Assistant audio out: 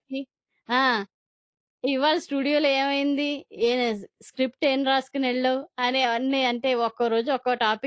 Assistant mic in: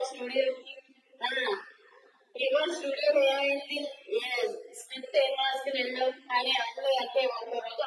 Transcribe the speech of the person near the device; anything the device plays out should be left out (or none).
none